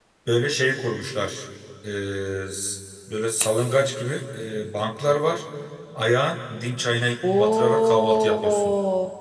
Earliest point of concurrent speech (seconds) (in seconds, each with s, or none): 7.2 s